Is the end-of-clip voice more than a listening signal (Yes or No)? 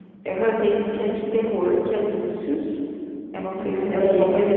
No